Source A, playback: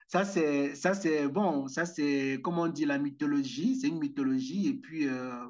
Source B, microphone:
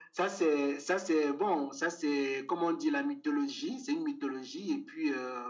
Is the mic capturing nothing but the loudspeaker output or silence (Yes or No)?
Yes